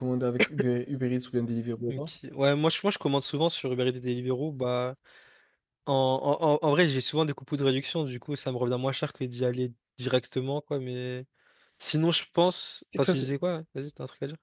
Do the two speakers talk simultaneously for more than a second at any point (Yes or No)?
No